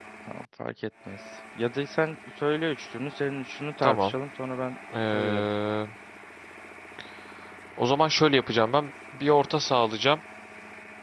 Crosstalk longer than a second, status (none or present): none